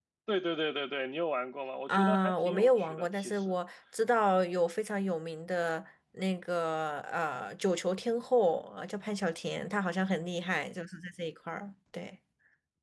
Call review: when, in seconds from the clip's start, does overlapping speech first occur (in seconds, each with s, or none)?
1.9 s